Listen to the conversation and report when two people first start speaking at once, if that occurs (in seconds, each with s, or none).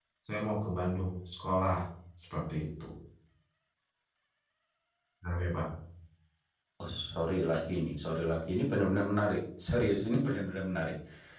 none